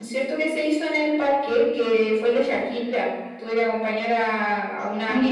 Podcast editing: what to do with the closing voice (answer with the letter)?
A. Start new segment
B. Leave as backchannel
A